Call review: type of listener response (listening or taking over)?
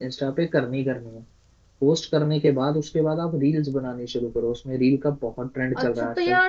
taking over